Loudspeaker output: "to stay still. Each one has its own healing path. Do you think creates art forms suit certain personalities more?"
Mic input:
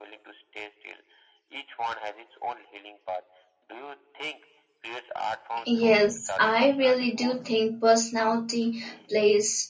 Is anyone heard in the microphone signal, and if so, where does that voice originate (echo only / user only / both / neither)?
both